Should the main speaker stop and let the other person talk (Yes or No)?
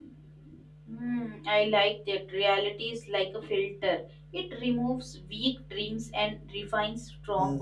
Yes